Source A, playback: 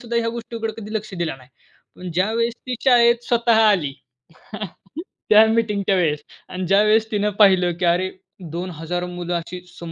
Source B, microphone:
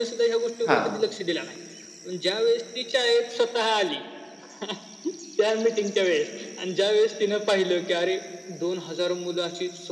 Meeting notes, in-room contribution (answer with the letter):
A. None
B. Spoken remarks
B